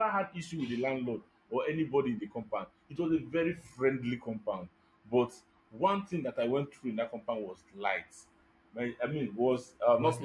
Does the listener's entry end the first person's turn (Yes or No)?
No